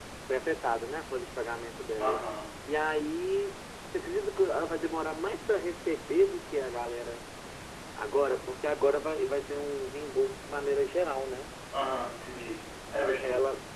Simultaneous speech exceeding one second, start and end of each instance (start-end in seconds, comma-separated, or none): none